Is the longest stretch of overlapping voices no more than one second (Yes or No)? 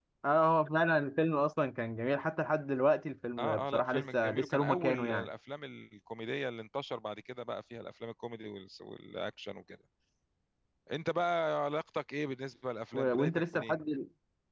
No